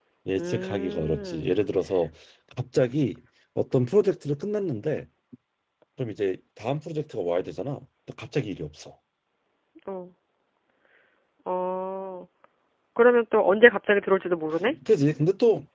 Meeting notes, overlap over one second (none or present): present